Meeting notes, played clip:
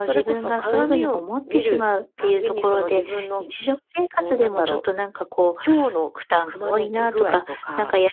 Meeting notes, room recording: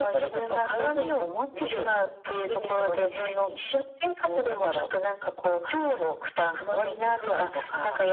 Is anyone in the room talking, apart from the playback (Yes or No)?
No